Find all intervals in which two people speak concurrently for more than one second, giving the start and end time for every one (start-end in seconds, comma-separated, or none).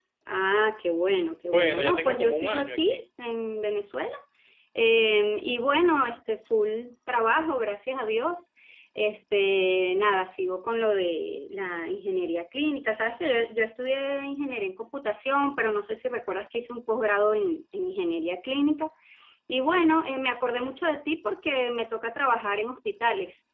1.5-3.0